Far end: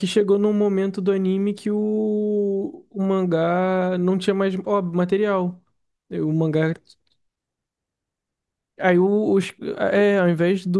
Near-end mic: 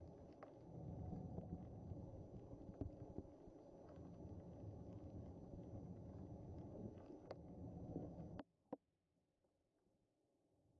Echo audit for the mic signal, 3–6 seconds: neither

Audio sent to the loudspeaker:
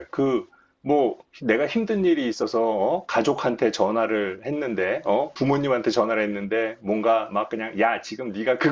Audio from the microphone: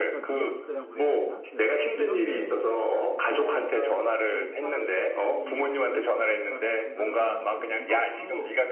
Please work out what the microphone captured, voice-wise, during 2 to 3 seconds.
both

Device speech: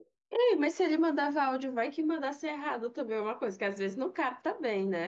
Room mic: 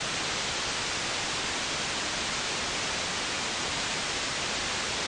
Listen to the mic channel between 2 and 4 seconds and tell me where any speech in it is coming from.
neither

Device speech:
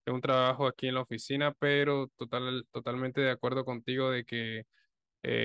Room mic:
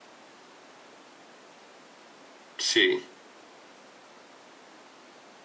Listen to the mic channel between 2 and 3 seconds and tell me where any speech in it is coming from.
user only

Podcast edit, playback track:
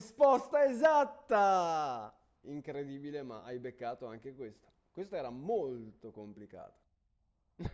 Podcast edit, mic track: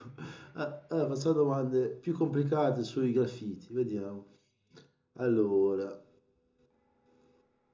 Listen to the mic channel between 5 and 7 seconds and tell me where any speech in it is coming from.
user only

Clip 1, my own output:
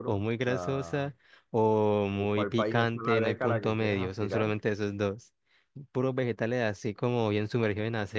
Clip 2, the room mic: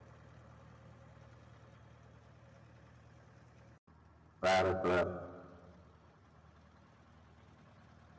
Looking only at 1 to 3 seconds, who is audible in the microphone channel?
neither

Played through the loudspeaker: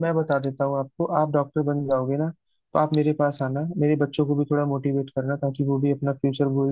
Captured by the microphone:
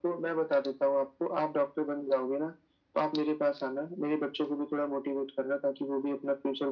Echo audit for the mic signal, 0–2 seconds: echo only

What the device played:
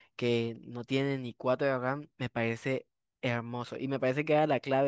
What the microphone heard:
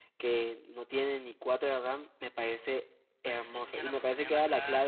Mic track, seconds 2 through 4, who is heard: both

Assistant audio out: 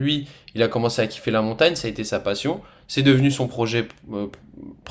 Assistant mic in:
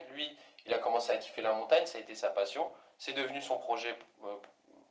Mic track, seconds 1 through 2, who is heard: echo only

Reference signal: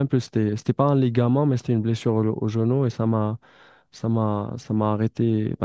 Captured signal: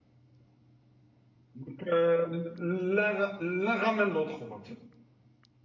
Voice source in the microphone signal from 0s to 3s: user only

